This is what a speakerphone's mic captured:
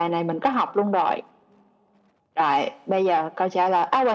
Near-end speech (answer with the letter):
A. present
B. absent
B